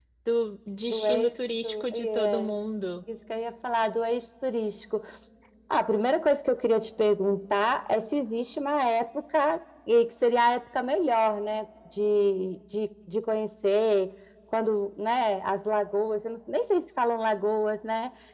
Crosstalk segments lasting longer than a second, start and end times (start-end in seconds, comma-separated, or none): 0.9-2.5